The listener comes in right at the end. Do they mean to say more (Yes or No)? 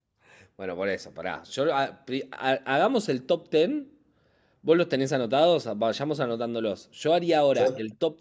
No